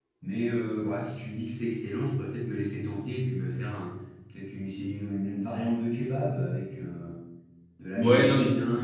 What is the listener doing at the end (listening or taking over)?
taking over